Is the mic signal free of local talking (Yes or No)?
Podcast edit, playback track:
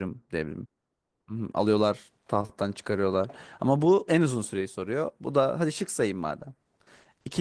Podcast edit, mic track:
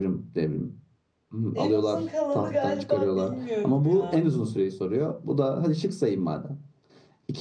No